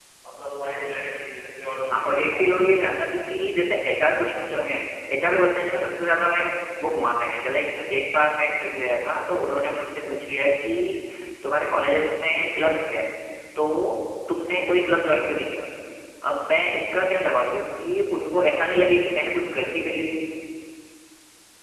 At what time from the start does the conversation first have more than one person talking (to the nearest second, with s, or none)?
2 s